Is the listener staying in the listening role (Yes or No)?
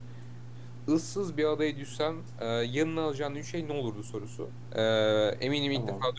Yes